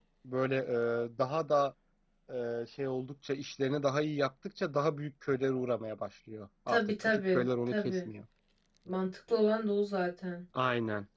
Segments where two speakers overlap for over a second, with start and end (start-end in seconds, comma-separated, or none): 6.7-8.1